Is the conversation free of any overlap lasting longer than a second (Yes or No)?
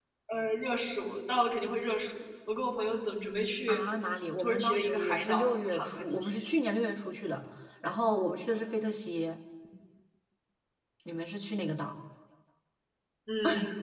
No